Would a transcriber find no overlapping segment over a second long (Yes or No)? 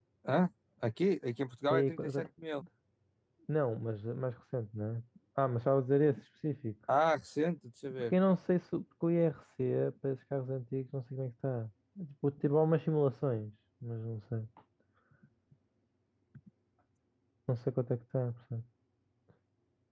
Yes